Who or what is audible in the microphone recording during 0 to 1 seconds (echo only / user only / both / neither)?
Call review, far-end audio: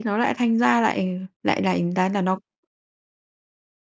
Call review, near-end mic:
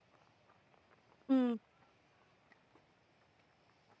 neither